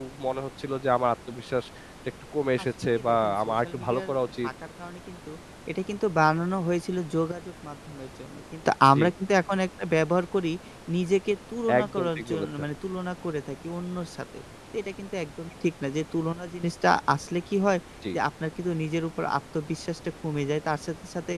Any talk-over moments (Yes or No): Yes